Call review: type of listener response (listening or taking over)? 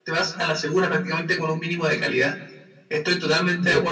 listening